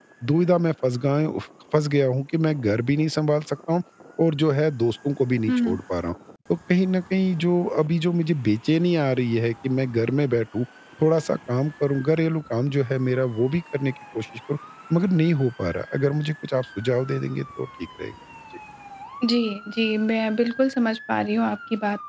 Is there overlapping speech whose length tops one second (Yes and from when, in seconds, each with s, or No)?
No